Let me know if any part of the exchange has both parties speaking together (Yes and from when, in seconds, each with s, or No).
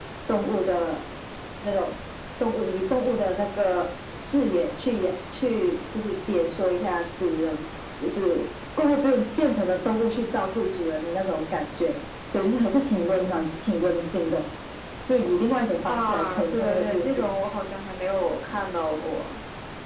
Yes, from 15.9 s